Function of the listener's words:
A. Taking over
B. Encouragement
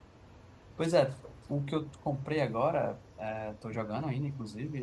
B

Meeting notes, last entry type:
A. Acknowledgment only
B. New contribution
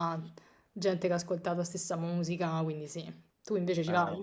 B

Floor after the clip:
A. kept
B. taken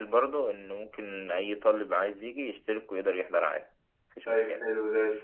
B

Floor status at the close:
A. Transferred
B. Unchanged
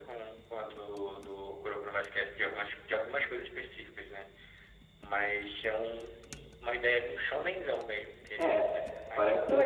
A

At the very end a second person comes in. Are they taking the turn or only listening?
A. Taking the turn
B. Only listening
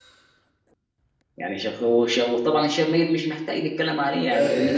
A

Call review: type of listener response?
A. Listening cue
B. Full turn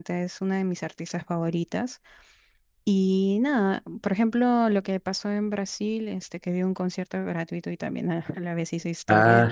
B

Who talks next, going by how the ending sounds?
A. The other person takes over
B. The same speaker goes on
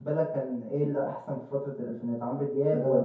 A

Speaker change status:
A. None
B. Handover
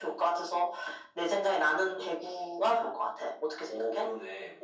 B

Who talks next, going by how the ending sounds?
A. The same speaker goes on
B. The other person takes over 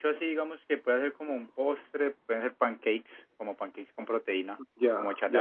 B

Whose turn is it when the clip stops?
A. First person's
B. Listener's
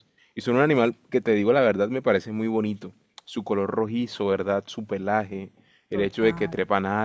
A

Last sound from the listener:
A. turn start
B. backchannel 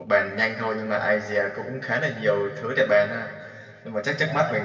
B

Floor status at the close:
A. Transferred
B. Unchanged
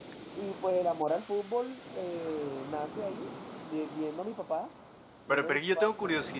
A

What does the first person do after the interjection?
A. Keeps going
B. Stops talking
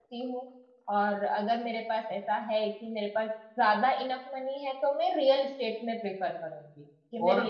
B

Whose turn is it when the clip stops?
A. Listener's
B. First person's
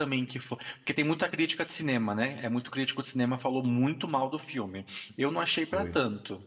B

